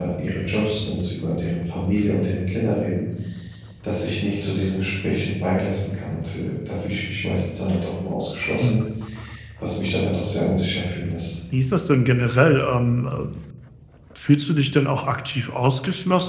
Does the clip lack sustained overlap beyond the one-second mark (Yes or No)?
Yes